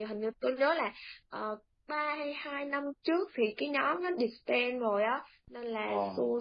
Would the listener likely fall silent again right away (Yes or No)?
Yes